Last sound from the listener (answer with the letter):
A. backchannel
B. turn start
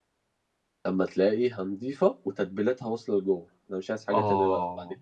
B